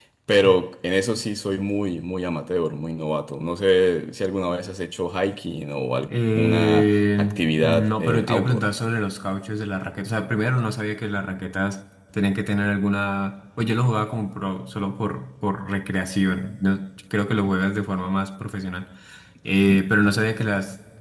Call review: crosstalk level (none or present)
present